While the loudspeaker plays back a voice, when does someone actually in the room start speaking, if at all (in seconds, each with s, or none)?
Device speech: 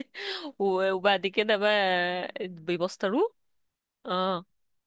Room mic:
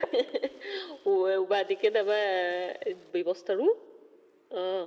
none